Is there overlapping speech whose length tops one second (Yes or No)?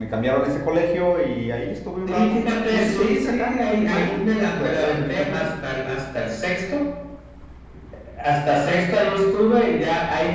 Yes